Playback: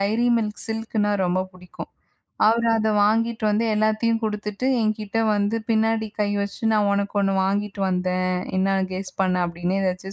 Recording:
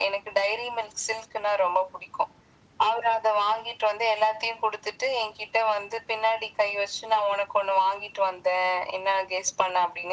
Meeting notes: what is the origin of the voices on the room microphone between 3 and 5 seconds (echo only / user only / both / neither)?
echo only